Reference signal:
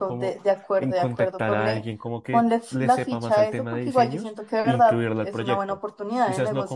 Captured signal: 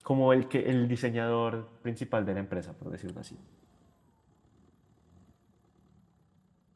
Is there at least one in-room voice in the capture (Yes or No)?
Yes